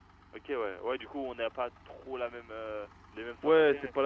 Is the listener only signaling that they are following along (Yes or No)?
No